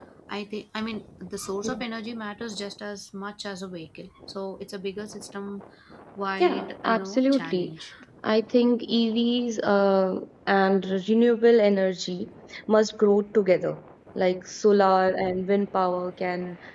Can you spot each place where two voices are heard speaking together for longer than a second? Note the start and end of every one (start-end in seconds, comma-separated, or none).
6.4-7.7